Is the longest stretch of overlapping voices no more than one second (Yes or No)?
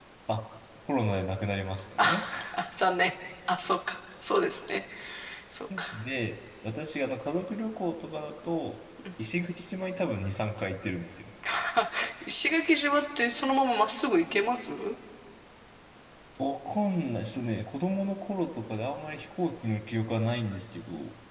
Yes